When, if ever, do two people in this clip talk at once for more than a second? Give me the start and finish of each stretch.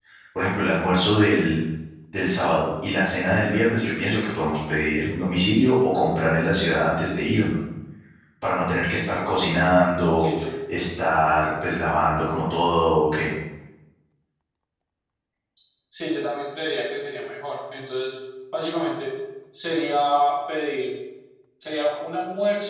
none

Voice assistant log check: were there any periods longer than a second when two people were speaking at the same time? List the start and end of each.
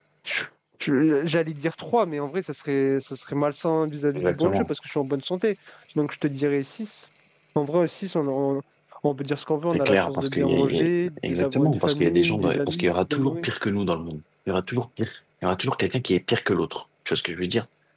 9.6-10.8, 11.3-13.5

